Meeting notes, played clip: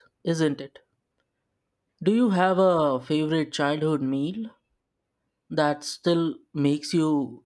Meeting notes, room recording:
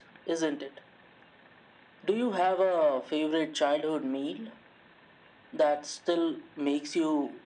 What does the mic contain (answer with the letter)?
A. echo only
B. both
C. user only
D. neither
A